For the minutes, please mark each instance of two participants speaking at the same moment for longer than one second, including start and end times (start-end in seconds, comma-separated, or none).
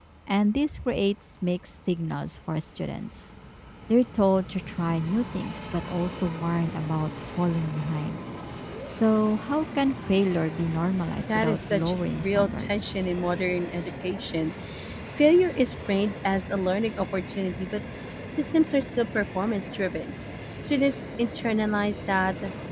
11.2-13.1